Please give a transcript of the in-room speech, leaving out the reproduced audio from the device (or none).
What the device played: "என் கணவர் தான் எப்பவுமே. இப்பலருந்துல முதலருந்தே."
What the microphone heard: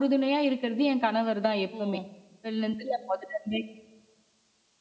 ஓ!